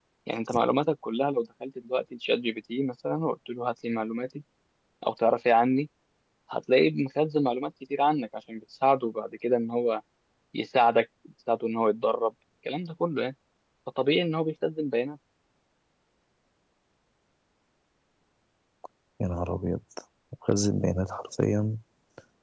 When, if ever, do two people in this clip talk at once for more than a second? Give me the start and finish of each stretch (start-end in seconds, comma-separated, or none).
none